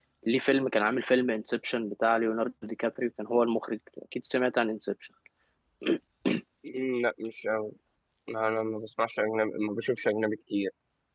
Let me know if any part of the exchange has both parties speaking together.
No

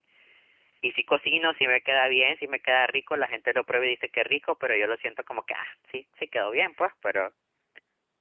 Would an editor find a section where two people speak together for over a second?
No

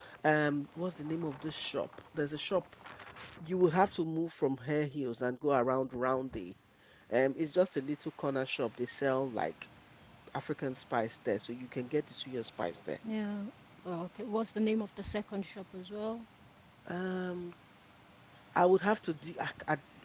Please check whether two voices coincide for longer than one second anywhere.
No

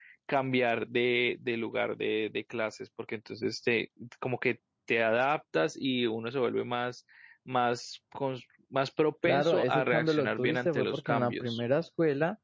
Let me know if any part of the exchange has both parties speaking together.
Yes, from 9.2 s

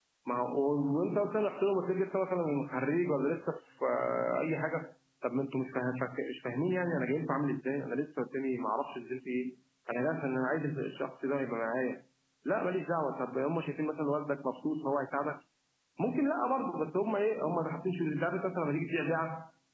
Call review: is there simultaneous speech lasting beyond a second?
No

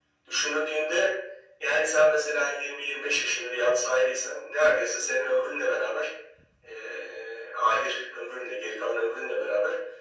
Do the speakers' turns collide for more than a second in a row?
No

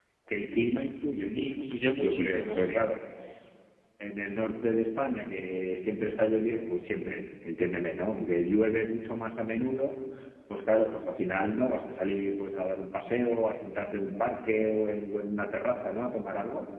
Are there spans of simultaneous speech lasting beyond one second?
Yes, from 1.3 s

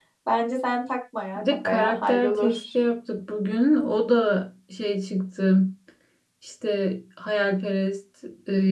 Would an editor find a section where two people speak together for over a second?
Yes, from 1.4 s

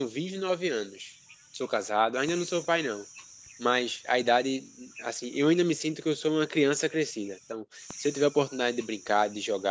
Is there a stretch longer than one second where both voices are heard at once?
No

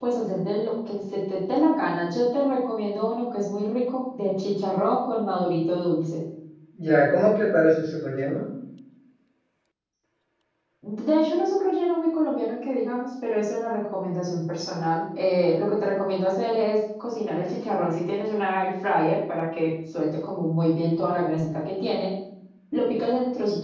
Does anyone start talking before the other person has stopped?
No

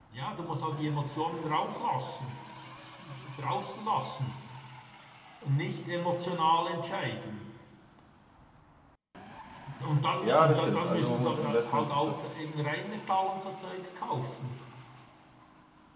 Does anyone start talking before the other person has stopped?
Yes, from 10.2 s

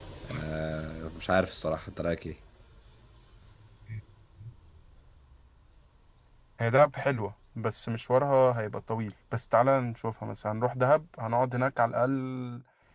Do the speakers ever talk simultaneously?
No

